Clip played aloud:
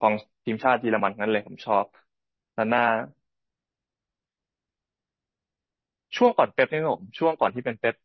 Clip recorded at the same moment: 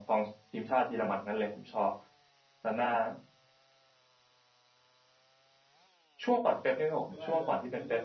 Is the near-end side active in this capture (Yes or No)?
Yes